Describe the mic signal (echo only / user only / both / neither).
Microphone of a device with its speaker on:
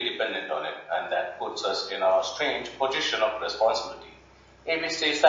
echo only